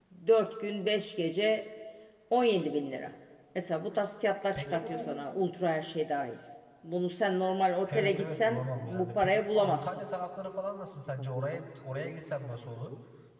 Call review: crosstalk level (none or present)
present